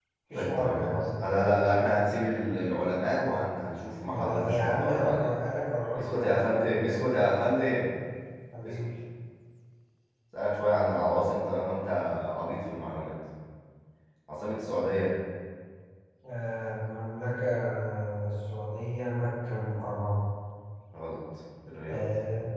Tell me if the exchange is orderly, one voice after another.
No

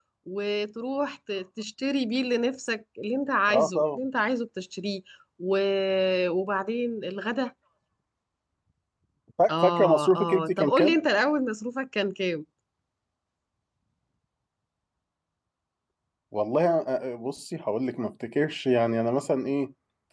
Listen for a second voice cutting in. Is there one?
Yes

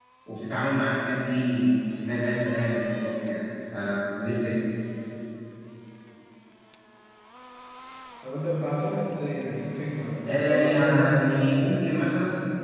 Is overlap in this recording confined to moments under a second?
No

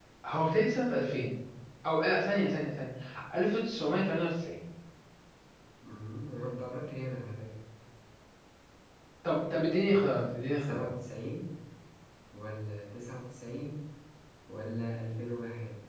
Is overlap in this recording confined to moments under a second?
Yes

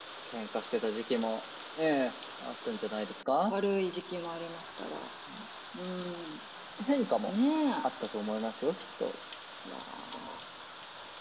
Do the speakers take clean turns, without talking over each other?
Yes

